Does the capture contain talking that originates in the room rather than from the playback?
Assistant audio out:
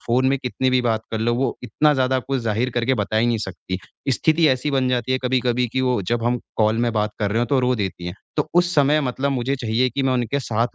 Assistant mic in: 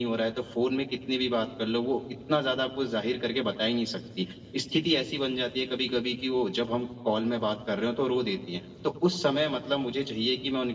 No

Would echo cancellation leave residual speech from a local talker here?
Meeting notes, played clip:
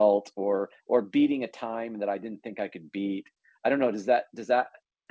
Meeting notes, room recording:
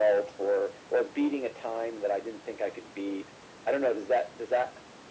No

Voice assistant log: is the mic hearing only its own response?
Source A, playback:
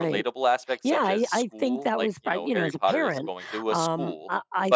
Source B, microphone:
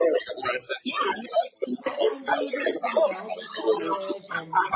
No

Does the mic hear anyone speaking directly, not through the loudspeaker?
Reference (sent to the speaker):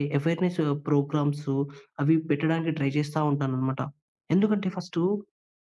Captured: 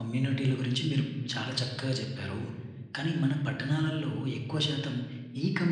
Yes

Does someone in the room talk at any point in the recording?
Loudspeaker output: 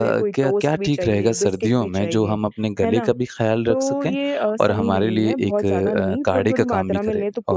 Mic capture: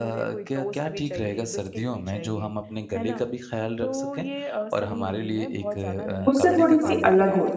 Yes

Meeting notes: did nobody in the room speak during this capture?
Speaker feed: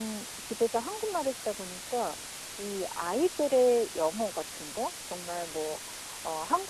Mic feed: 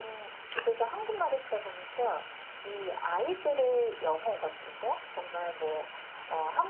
Yes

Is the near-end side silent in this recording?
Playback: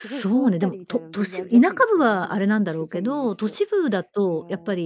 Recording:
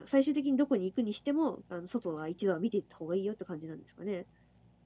No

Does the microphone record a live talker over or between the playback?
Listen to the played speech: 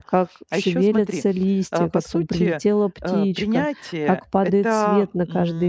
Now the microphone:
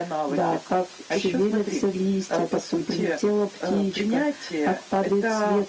No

